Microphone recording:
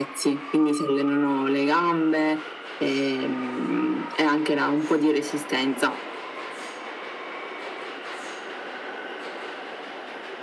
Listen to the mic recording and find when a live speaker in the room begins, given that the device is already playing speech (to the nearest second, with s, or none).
none